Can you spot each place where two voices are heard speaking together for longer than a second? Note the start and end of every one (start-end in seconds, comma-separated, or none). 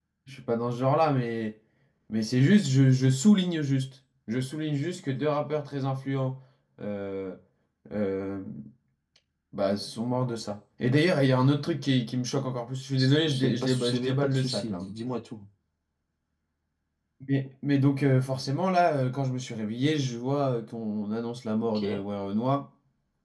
13.3-14.8